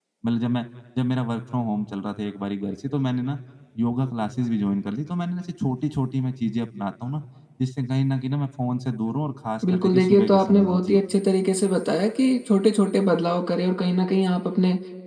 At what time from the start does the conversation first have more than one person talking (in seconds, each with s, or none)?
9.6 s